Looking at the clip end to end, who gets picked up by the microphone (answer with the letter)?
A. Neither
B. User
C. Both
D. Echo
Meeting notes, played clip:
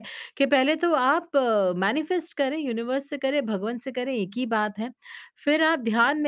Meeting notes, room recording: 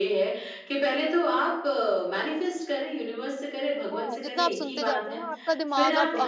C